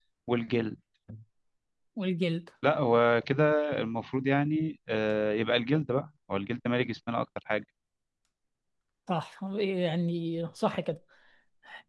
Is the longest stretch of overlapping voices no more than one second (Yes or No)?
Yes